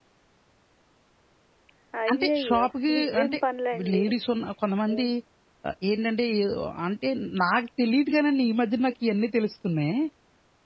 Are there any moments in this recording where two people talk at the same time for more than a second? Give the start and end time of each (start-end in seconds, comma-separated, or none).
2.1-3.4